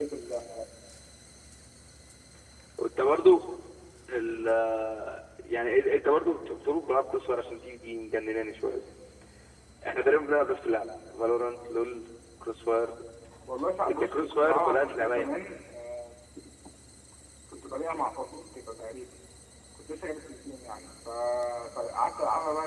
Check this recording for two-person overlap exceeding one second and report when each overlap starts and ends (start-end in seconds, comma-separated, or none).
13.9-15.3